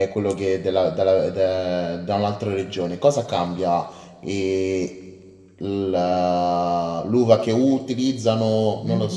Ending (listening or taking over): taking over